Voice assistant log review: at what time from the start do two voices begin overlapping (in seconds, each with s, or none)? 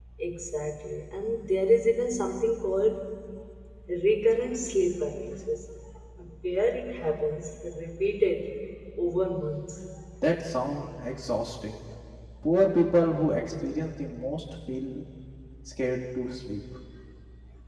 none